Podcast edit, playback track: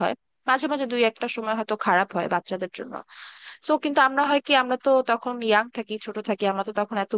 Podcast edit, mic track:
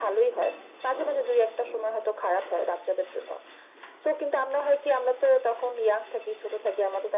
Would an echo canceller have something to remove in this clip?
Yes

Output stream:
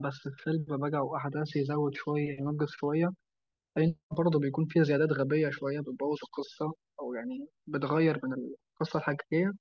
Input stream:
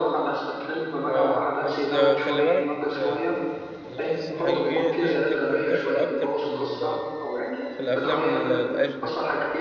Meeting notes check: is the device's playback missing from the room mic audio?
No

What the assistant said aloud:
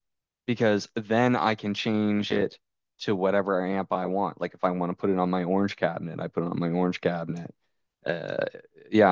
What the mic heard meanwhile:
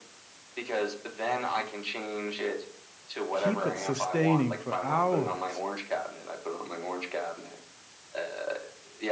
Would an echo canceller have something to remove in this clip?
Yes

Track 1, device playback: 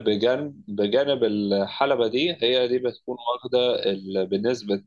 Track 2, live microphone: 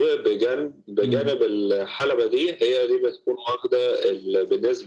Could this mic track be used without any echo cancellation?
No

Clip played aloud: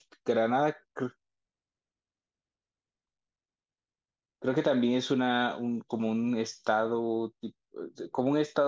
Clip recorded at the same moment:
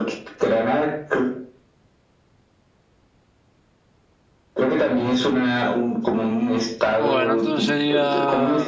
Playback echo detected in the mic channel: Yes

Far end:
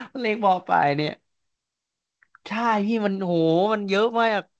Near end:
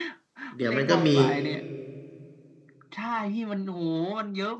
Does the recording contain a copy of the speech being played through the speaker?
Yes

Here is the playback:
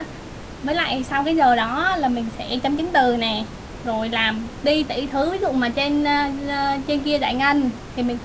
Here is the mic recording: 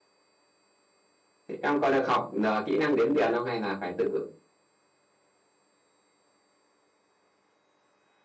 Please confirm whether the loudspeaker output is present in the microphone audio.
No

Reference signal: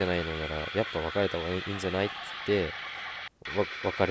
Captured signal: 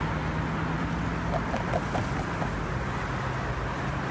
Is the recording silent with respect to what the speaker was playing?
Yes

